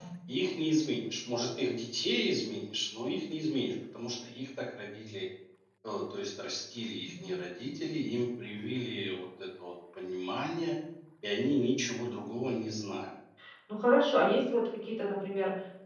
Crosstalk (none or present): none